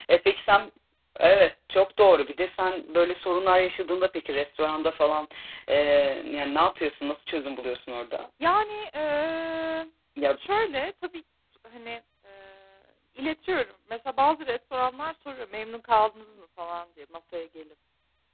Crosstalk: none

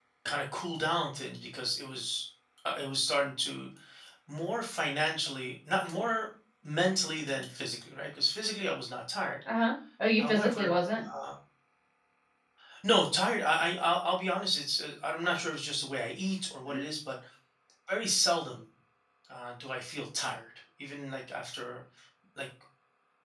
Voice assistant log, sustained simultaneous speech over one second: none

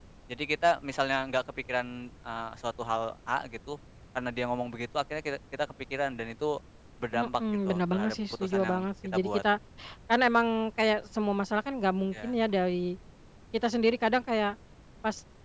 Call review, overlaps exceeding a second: present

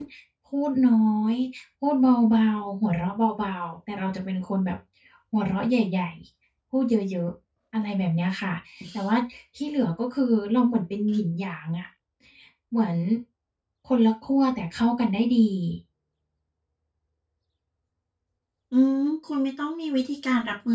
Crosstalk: none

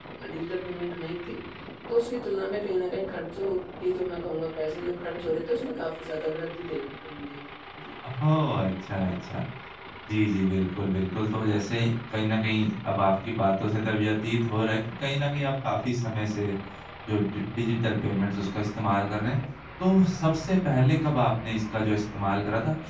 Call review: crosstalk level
none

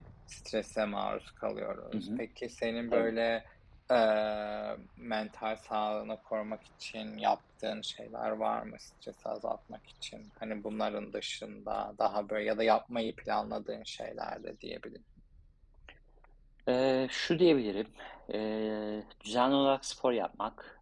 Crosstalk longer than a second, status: none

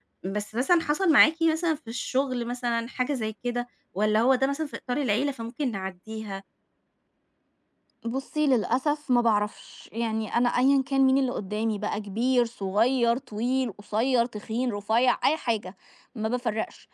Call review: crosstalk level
none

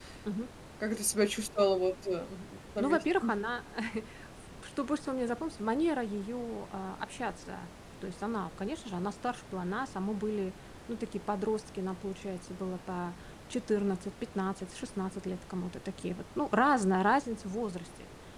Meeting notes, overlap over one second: none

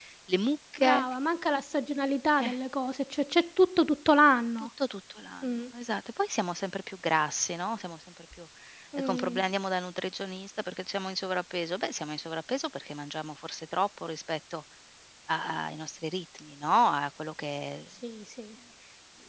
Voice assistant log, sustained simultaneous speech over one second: none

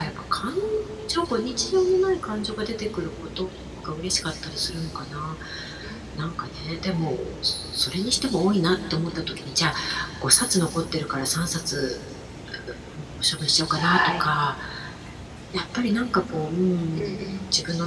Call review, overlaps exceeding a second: none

